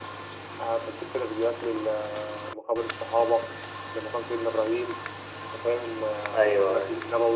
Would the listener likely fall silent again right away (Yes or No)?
Yes